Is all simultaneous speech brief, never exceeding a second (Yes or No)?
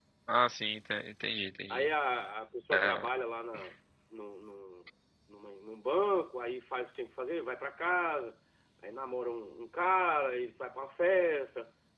Yes